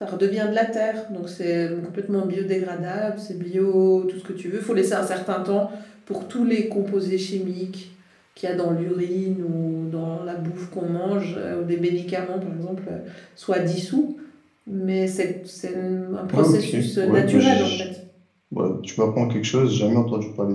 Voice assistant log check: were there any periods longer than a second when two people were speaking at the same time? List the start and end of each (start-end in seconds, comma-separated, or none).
16.3-17.8